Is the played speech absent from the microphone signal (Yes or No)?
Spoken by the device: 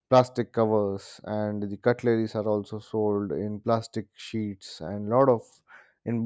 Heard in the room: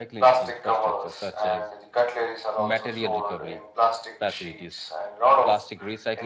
No